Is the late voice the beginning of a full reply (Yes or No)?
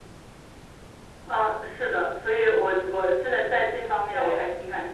No